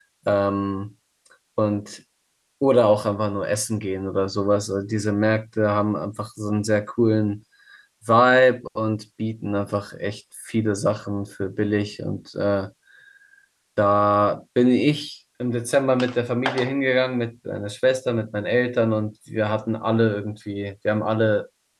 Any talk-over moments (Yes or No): No